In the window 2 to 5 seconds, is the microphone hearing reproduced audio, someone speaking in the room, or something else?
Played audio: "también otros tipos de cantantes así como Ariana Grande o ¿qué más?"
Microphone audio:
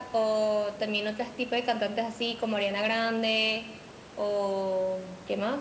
echo only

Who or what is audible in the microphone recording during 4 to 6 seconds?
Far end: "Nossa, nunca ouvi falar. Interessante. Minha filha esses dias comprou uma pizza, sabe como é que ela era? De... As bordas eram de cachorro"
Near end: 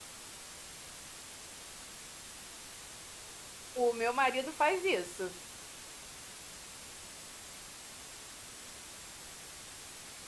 user only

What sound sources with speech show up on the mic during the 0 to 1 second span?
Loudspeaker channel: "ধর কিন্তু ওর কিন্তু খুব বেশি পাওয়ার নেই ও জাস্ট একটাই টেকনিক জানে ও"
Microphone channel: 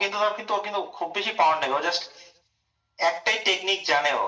echo only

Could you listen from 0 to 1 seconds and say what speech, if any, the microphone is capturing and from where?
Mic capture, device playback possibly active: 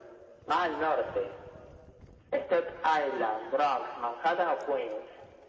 echo only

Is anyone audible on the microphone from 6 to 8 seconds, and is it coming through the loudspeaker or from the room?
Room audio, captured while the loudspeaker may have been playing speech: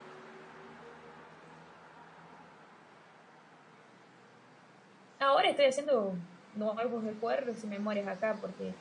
user only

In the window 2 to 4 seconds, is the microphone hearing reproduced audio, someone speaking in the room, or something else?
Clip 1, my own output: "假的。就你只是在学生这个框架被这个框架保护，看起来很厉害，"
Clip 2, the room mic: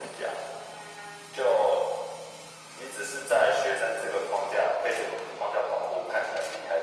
echo only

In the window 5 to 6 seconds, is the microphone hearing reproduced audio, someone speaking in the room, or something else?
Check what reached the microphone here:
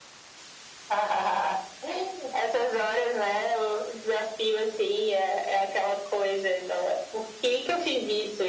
echo only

